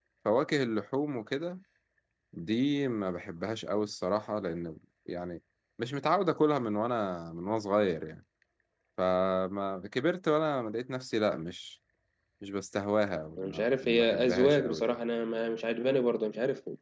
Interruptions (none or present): present